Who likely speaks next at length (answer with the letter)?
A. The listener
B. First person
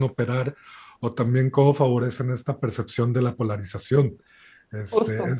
B